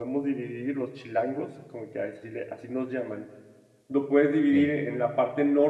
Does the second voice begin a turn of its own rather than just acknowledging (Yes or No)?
No